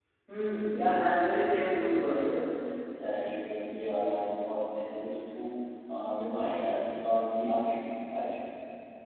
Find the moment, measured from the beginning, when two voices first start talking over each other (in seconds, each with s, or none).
none